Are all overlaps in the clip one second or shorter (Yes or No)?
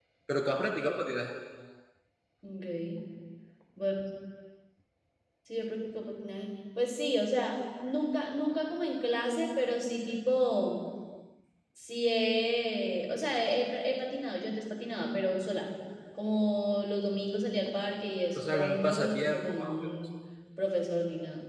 No